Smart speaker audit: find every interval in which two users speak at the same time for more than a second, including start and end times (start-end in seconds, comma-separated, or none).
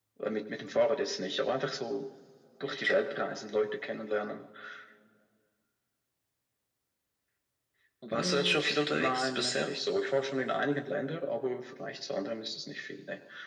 8.2-9.7